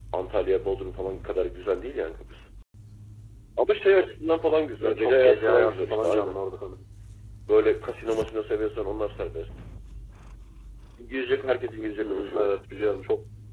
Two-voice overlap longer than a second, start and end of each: 4.8-6.4

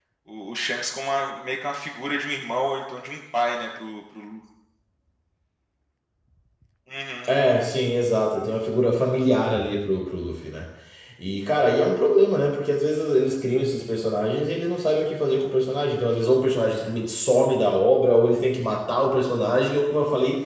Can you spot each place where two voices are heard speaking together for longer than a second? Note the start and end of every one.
none

